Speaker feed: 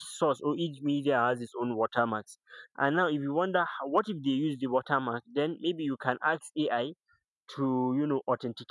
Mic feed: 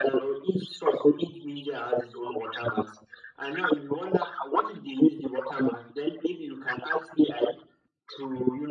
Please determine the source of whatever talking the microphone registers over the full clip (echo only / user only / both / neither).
echo only